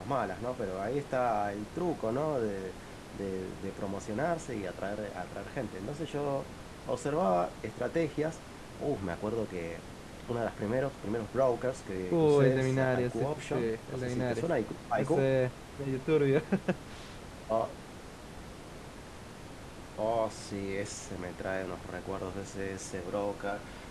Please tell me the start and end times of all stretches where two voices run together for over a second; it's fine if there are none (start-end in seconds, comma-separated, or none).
12.1-14.4